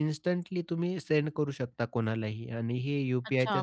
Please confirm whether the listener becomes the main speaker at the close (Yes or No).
Yes